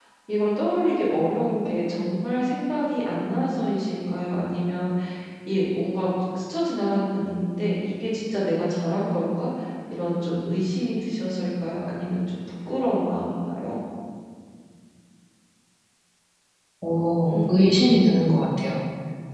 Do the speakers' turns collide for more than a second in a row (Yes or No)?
No